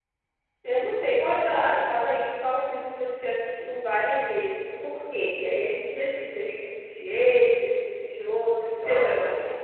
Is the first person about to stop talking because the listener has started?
Yes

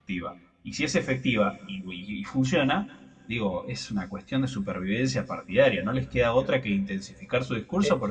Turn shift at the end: Yes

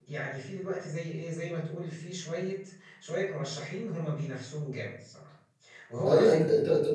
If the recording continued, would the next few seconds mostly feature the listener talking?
Yes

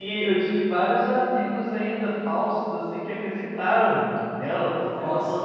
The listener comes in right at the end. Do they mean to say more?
Yes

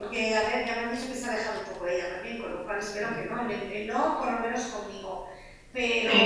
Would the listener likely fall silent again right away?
Yes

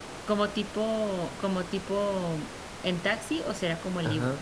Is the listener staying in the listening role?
No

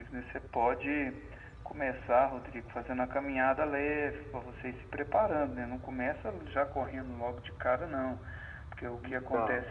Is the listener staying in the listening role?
Yes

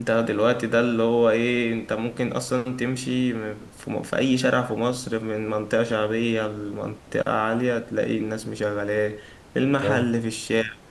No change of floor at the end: Yes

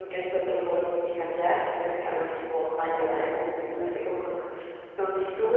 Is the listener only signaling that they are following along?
Yes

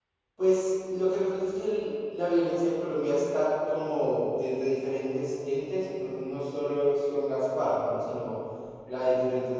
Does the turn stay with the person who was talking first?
Yes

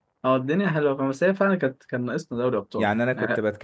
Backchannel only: No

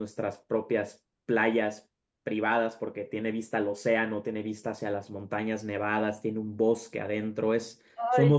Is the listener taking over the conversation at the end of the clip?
Yes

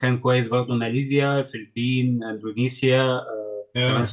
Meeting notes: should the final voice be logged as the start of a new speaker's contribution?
No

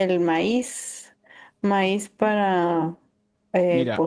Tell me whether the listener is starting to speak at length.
Yes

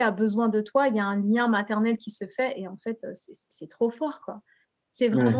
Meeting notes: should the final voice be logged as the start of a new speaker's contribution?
No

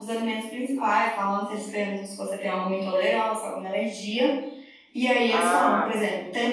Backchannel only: Yes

